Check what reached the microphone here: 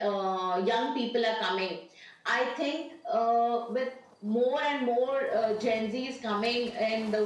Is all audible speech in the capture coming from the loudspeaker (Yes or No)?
Yes